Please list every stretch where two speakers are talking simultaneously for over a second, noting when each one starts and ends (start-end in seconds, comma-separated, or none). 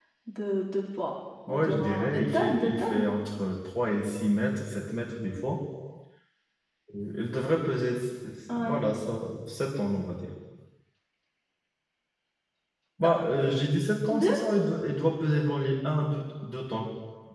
1.5-3.0